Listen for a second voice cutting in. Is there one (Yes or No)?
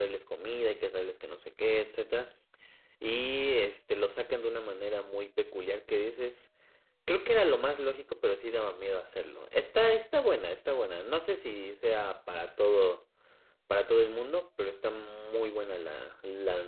No